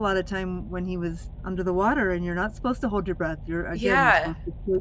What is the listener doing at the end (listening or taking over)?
taking over